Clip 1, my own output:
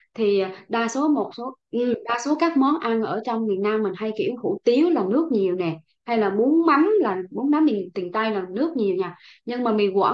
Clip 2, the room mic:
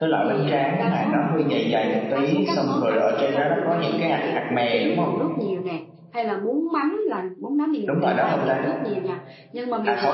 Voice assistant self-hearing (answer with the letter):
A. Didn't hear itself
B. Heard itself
B